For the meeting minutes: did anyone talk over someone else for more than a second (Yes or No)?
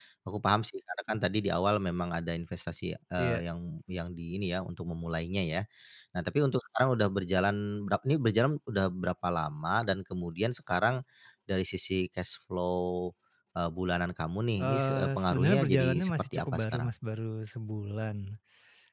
Yes